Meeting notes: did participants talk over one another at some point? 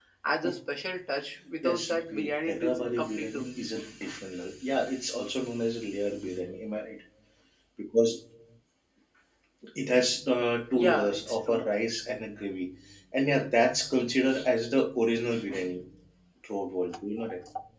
Yes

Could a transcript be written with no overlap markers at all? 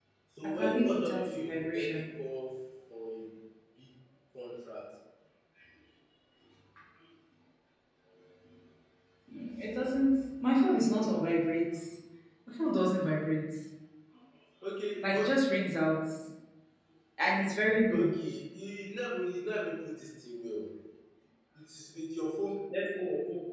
No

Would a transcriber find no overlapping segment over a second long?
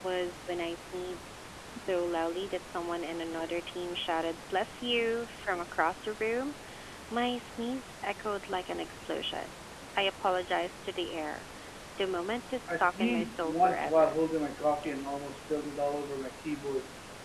No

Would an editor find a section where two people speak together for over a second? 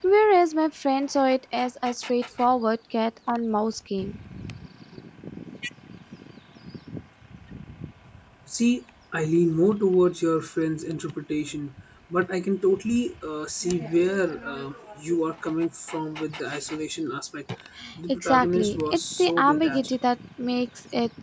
Yes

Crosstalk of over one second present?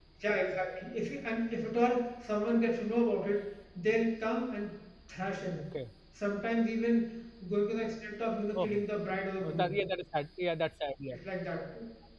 No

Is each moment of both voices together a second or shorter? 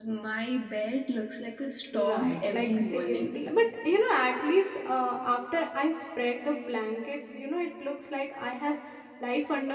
No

